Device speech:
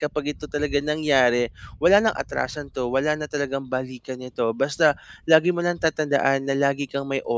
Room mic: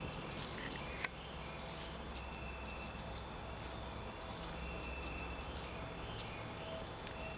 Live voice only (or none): none